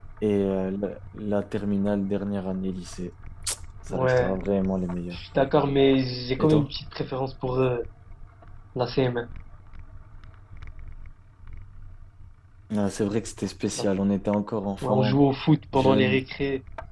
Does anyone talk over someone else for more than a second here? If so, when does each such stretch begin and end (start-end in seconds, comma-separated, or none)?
none